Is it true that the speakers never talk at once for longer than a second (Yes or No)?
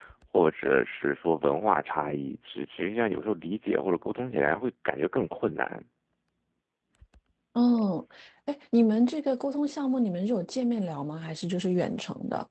Yes